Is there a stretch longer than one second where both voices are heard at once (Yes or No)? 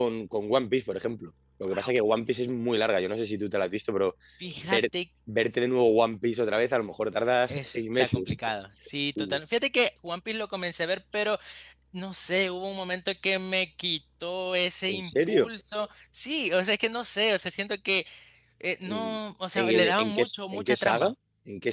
Yes